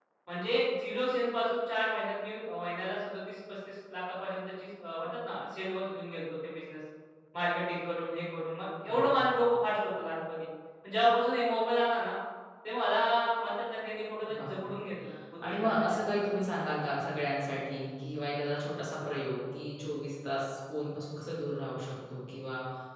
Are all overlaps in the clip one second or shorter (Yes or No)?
Yes